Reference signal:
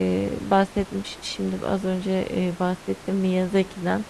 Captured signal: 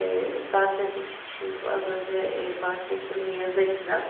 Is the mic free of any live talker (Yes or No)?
Yes